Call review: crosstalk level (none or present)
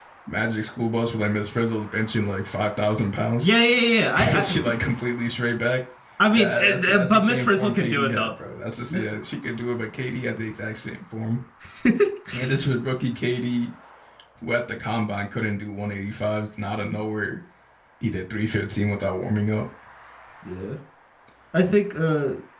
present